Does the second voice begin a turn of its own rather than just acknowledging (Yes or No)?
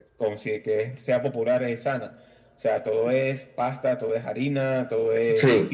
No